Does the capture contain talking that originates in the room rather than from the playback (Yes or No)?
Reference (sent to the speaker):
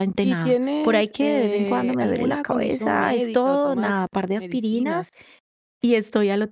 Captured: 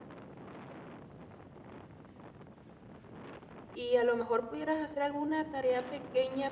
Yes